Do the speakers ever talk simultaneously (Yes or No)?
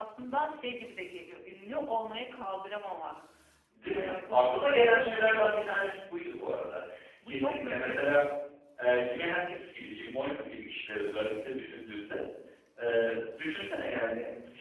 Yes